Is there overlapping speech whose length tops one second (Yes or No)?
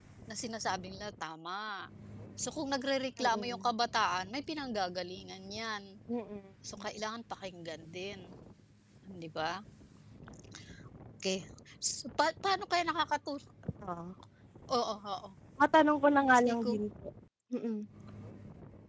No